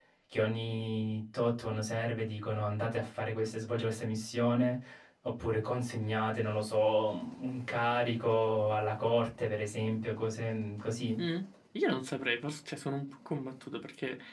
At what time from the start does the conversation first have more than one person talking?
none

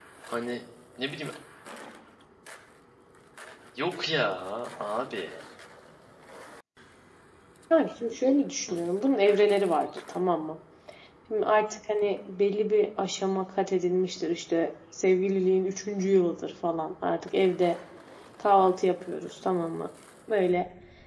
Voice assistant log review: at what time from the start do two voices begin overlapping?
none

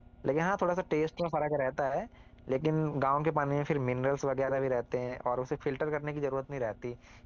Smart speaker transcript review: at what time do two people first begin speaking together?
none

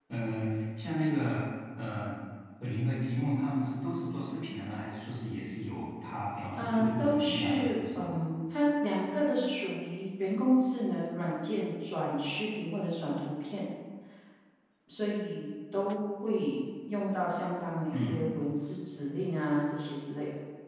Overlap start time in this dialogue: 6.6 s

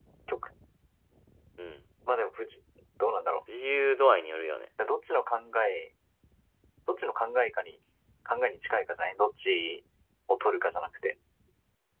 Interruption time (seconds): none

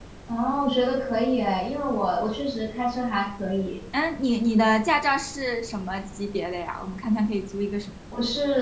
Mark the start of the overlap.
none

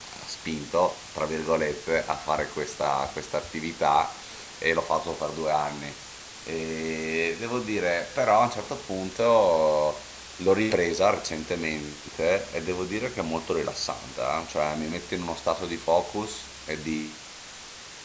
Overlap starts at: none

